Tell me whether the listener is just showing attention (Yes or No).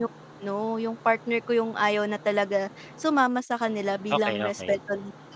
Yes